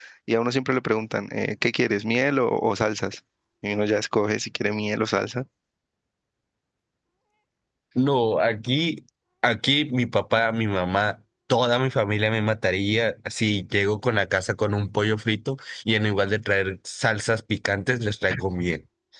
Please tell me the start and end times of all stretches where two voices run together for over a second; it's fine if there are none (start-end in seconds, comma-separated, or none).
none